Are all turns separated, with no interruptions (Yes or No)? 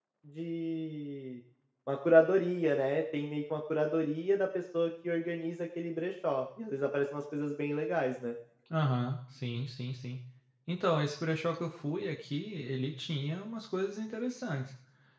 Yes